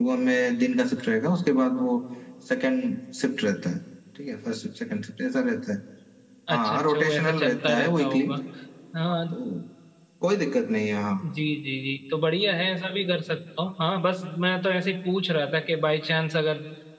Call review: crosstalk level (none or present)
present